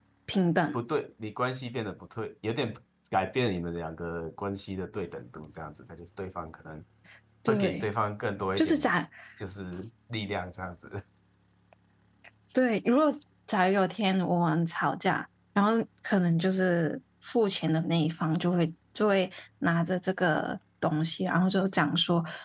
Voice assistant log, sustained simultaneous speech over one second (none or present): none